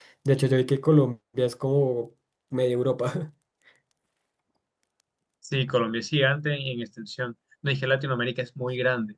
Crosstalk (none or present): none